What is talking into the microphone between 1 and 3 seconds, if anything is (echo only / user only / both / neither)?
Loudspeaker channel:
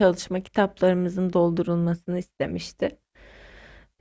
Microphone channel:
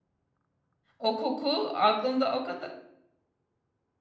user only